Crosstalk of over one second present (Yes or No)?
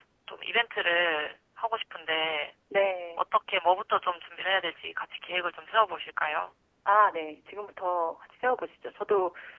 No